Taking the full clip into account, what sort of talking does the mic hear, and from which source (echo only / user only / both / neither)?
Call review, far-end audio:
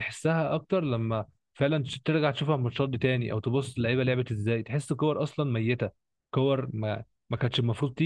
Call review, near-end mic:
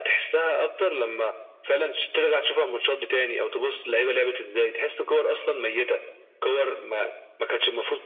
echo only